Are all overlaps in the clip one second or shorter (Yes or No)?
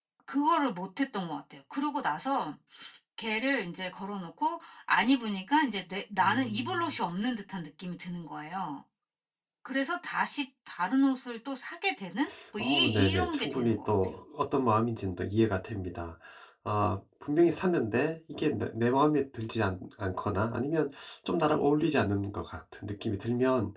No